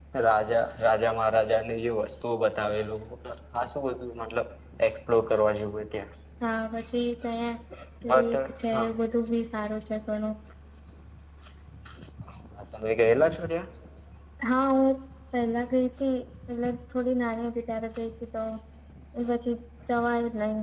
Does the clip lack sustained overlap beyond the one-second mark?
Yes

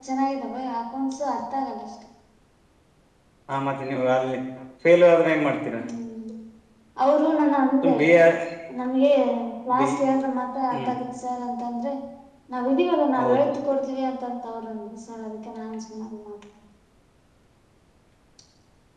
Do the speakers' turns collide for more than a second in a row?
No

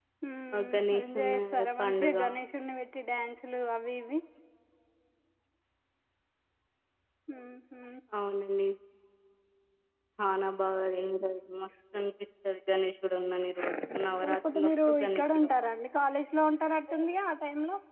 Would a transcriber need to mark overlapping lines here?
Yes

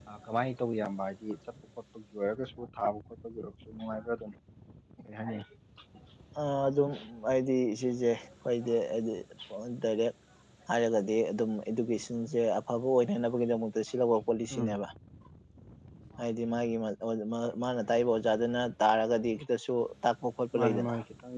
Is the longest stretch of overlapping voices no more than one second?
Yes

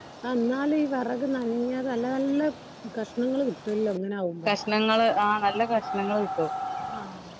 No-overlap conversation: Yes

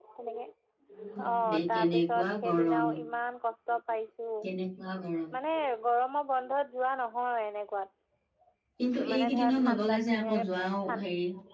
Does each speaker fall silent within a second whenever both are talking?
No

